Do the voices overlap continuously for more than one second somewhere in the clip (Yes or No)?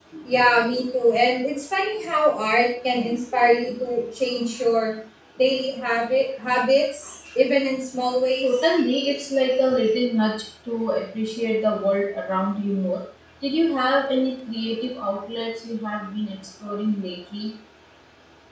No